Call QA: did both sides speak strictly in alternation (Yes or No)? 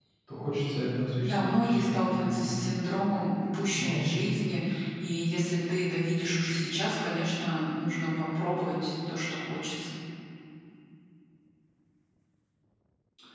No